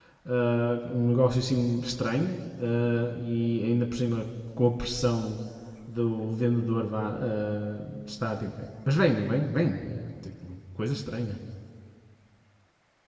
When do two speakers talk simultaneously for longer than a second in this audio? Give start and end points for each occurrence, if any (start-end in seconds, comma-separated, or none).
none